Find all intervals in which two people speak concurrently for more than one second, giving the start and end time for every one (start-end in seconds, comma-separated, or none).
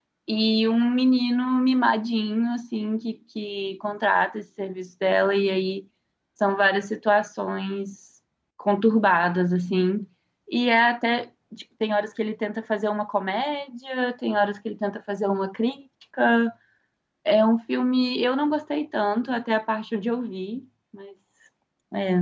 none